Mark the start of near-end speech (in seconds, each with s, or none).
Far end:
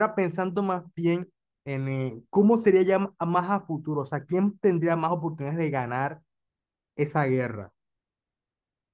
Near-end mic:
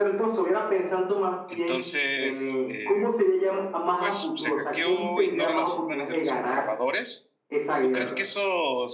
1.5 s